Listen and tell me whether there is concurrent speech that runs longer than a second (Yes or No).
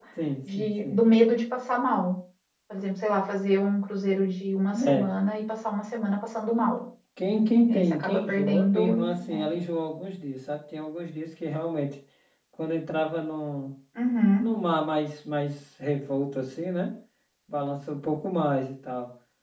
Yes